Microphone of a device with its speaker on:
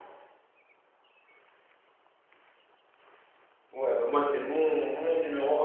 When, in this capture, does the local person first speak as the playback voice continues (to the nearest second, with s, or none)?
4 s